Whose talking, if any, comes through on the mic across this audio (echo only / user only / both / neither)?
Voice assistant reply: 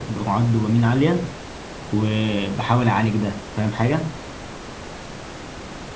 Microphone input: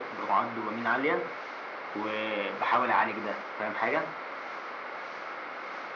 echo only